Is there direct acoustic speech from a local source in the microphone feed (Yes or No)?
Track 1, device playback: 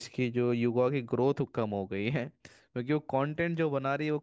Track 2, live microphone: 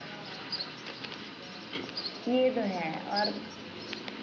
Yes